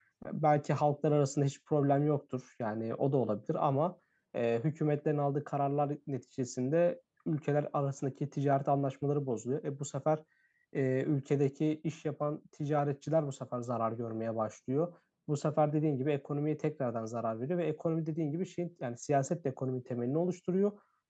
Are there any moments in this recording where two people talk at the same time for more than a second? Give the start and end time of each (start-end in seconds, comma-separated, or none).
none